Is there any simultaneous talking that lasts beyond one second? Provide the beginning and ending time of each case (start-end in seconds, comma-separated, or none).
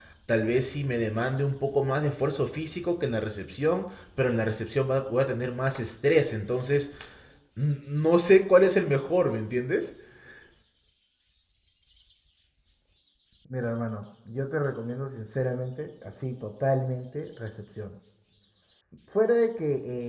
none